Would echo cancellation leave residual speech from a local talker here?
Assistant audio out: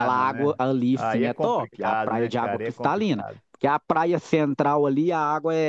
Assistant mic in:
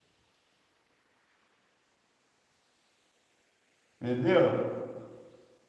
Yes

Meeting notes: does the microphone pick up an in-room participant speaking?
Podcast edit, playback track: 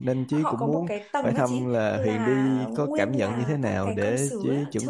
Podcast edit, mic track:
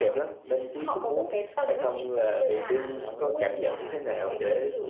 No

